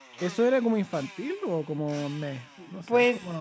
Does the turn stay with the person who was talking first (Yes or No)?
No